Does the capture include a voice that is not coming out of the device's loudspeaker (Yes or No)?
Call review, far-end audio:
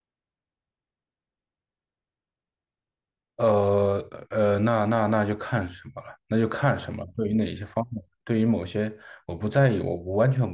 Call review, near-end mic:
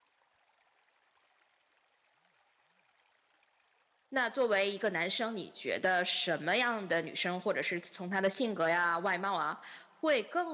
Yes